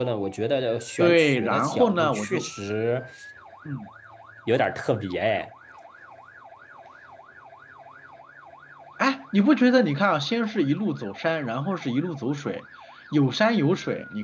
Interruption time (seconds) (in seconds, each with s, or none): 1.0 s